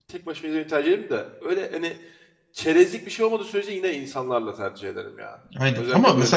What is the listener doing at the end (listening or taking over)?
taking over